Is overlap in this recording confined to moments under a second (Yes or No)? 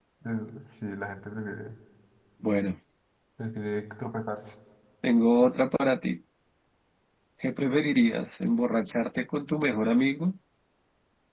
Yes